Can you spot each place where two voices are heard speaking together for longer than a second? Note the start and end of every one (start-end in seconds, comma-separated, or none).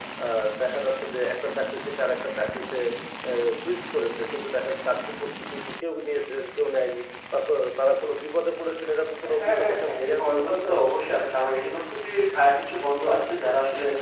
9.3-10.8